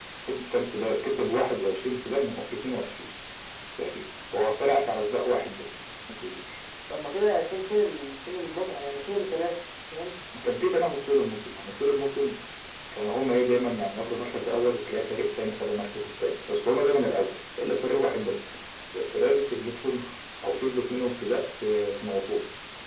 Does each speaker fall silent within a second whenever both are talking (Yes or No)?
Yes